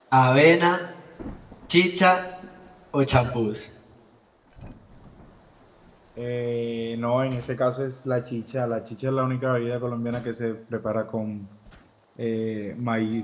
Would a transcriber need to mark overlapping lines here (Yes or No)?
No